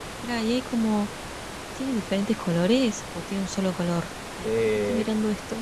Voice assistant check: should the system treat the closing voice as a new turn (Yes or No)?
Yes